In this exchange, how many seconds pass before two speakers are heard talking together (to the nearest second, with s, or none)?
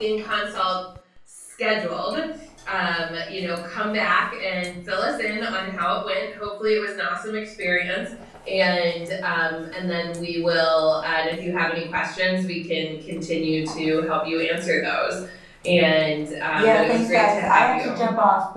17 s